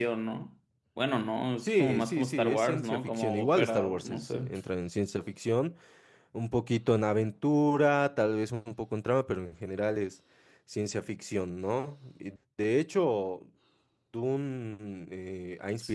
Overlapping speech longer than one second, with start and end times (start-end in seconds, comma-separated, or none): 1.6-4.4